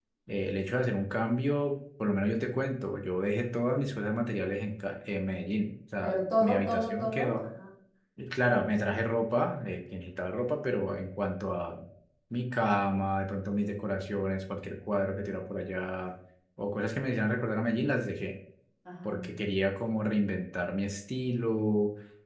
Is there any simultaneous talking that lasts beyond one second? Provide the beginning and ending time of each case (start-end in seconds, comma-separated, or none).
6.0-7.4